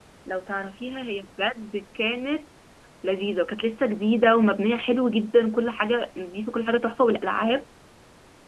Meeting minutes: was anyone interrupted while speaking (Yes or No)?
No